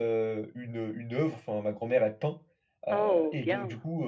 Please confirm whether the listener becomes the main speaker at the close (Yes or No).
No